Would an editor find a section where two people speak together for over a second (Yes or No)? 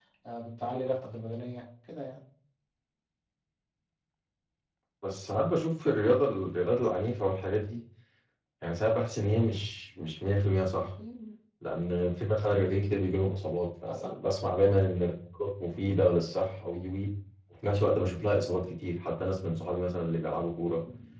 No